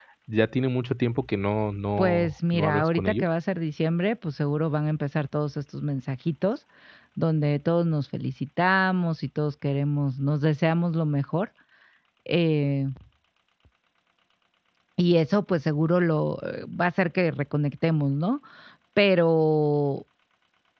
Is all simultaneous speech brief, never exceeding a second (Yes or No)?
No